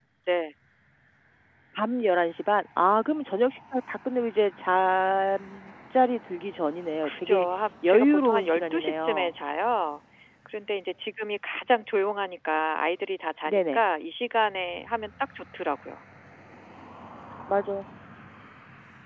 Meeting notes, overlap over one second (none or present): present